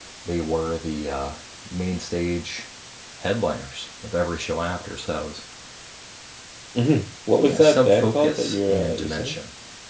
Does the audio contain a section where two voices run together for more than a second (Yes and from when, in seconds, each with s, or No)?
Yes, from 7.4 s